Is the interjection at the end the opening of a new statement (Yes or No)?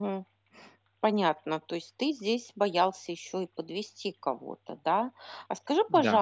No